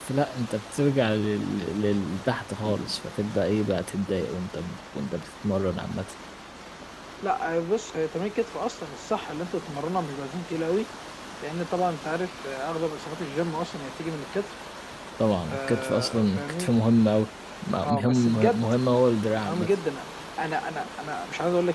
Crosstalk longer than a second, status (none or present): present